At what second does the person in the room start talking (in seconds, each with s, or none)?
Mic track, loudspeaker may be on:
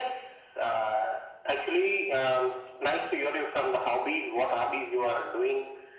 none